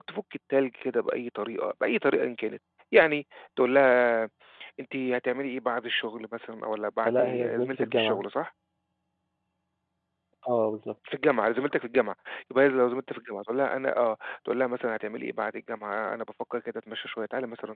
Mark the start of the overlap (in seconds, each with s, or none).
7.0 s